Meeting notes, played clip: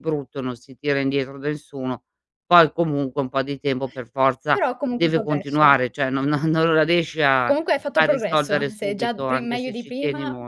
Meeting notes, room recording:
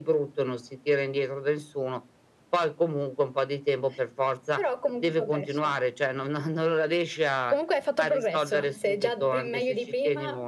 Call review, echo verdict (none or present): present